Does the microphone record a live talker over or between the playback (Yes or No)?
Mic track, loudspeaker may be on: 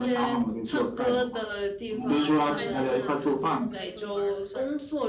Yes